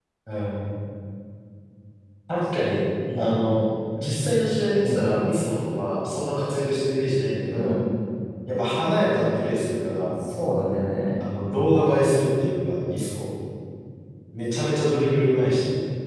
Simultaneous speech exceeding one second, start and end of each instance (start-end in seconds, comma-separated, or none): none